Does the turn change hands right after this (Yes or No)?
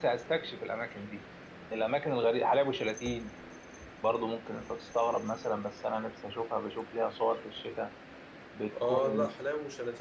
Yes